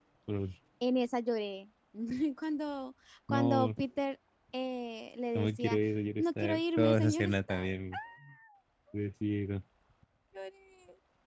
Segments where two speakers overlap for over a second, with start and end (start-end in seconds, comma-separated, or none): 6.2-8.0